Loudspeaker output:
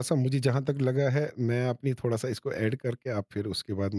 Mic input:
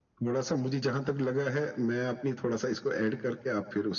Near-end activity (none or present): none